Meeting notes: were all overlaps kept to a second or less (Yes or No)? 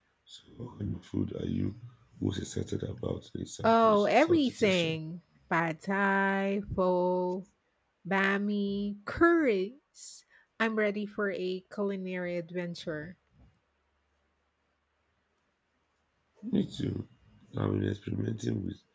No